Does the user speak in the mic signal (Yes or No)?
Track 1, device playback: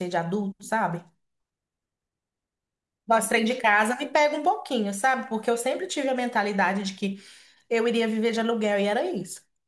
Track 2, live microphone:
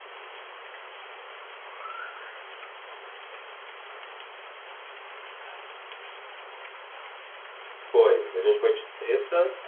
Yes